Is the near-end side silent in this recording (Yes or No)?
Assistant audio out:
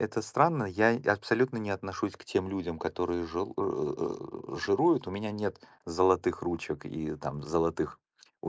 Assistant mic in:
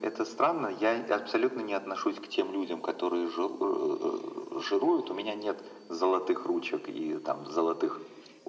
Yes